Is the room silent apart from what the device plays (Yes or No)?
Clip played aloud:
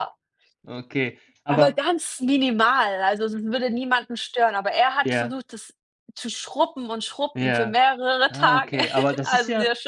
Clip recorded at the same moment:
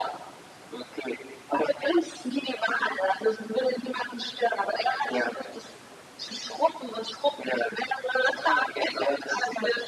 Yes